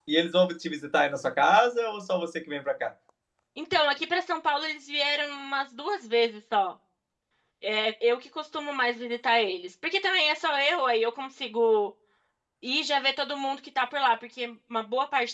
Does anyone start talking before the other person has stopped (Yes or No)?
No